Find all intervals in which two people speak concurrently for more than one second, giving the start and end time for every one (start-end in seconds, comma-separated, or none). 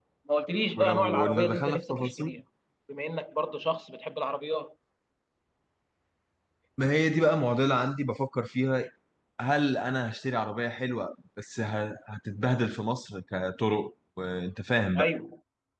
0.8-2.3